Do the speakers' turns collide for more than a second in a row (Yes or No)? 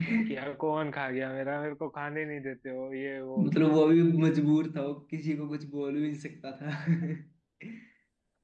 No